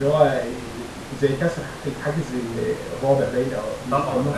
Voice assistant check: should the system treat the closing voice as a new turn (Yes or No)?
Yes